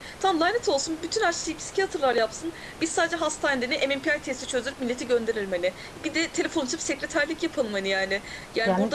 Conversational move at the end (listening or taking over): listening